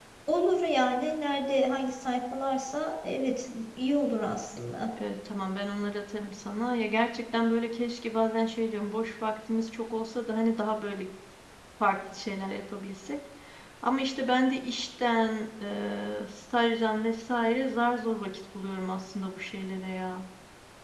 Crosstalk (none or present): none